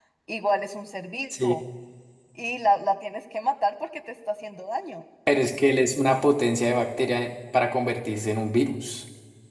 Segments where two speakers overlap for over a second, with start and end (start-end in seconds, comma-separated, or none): none